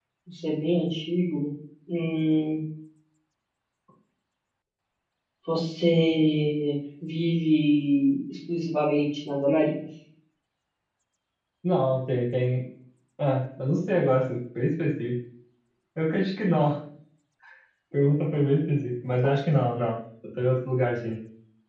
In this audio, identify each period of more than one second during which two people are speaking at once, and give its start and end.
none

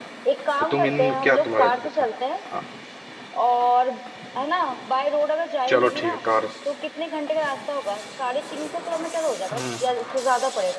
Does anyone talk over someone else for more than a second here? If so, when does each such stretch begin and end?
0.6-1.9

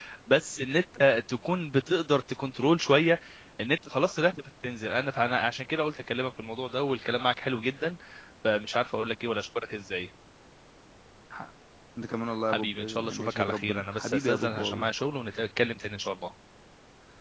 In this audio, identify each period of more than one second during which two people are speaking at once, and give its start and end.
12.5-14.9

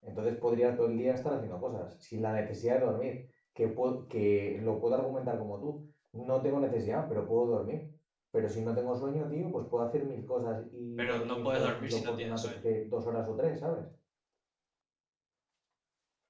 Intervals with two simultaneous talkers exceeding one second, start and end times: 11.0-12.6

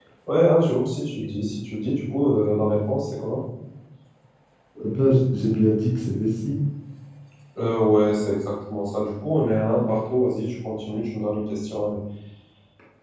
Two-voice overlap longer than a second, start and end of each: none

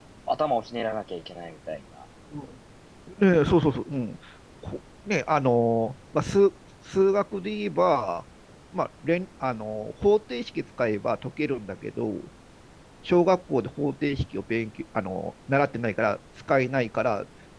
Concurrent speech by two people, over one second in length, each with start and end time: none

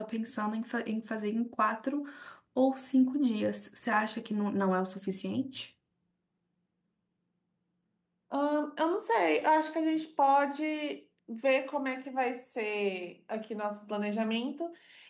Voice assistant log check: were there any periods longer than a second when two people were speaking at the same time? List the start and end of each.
none

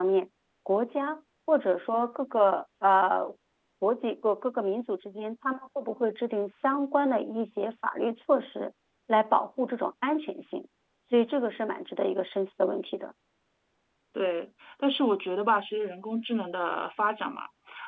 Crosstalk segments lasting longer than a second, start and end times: none

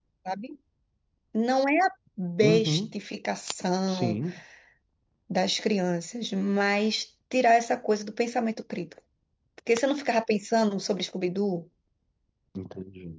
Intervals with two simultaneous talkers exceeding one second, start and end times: none

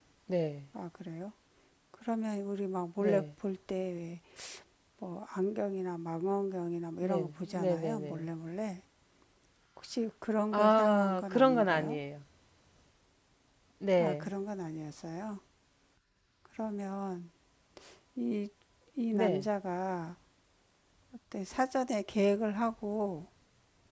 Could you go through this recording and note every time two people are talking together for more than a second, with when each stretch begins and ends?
7.0-8.3, 10.5-12.0

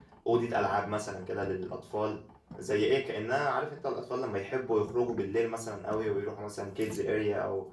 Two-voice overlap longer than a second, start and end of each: none

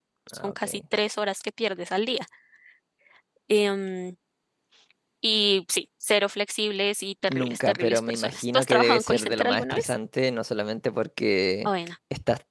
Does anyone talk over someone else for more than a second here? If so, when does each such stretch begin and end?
7.3-9.9

